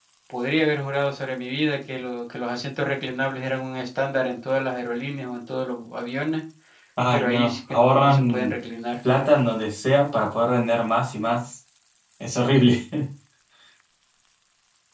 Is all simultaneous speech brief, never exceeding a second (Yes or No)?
No